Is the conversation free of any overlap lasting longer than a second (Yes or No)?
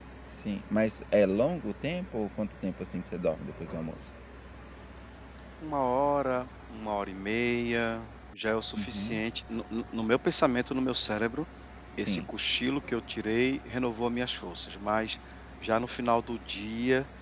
Yes